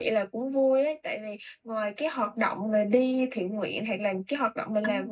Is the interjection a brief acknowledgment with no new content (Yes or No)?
Yes